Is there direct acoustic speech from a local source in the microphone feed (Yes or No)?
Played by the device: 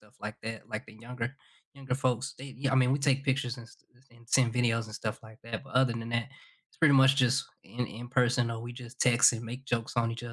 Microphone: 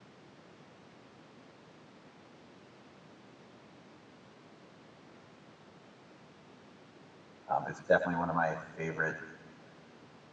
Yes